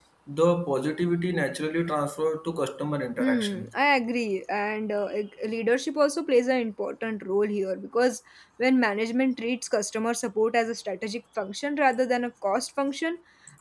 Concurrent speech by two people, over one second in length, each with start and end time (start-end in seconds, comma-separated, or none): none